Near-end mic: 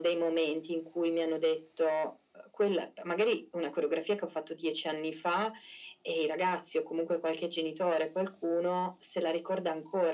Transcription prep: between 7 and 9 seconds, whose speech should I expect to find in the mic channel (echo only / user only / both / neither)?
echo only